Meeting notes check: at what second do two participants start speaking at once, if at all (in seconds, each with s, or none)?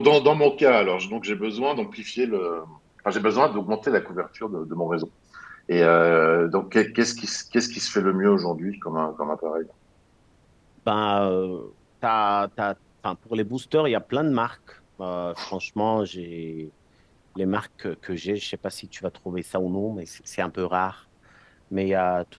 none